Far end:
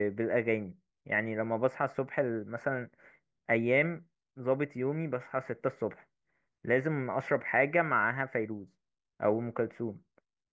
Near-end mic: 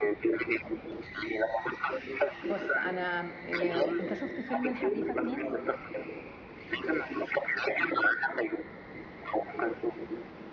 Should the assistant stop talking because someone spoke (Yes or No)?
Yes